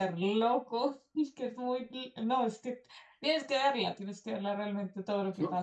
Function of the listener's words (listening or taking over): listening